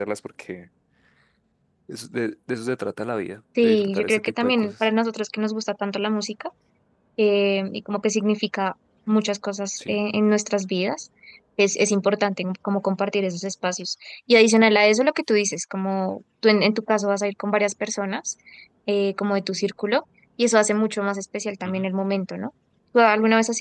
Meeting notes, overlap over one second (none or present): present